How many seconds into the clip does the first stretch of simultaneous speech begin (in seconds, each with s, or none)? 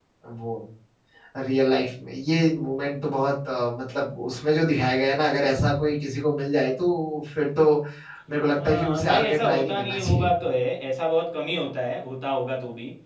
8.6 s